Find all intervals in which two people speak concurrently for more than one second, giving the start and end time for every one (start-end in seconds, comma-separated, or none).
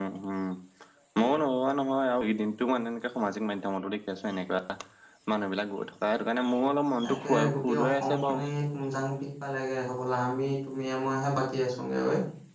7.0-8.5